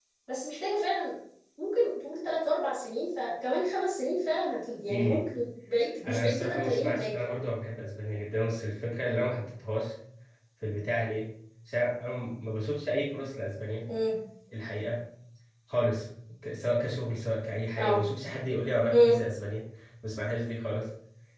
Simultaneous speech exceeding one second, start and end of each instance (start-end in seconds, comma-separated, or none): 6.0-7.3